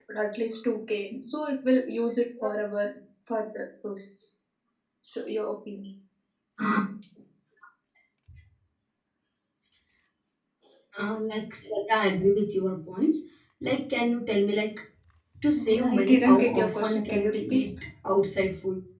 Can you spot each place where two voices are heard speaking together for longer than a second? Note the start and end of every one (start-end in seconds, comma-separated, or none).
15.6-17.6